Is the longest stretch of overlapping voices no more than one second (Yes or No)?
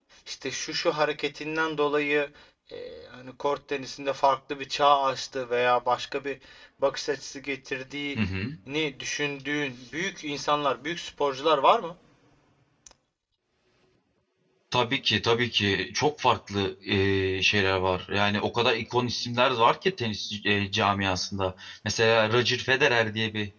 Yes